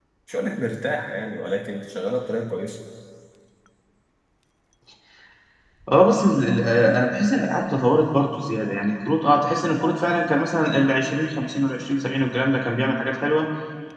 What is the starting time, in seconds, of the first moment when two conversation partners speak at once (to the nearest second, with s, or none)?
none